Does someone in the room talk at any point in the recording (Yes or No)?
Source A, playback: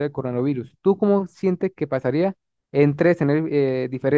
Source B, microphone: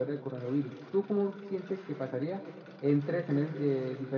No